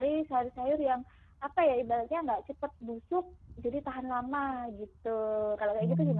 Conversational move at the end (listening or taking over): taking over